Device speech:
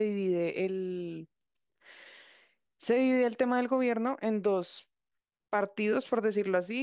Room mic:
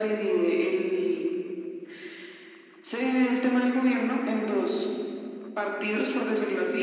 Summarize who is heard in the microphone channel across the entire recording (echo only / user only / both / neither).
echo only